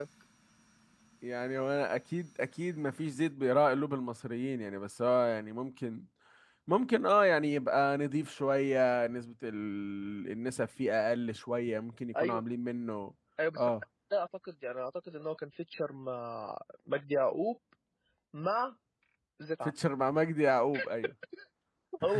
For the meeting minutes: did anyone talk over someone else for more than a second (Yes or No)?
No